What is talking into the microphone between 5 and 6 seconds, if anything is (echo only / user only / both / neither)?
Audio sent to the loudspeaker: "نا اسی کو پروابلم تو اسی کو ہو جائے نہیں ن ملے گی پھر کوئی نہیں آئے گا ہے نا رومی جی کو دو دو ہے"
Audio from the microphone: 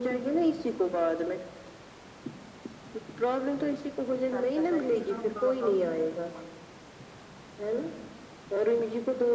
both